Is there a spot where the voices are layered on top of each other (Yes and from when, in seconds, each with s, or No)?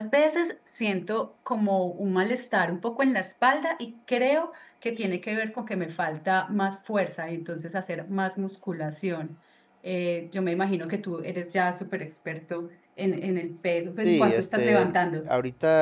Yes, from 14.0 s